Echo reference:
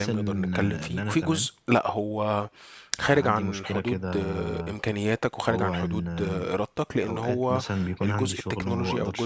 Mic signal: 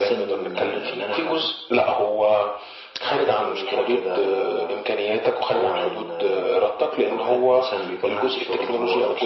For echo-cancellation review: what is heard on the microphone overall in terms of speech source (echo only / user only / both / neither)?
echo only